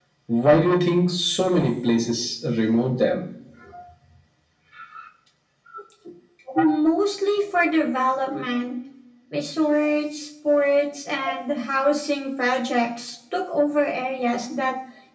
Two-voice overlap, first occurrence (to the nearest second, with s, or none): none